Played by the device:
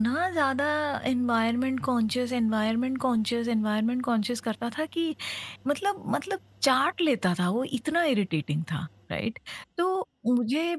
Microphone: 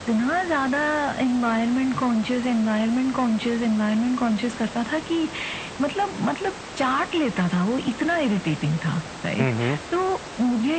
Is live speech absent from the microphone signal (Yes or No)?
No